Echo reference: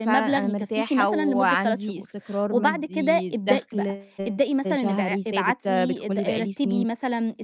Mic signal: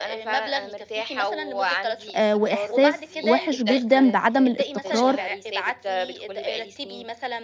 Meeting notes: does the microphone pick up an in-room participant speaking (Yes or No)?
Yes